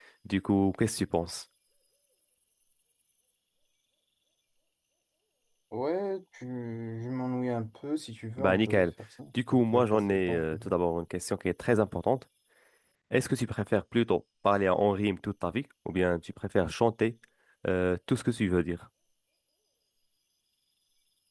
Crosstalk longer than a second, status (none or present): present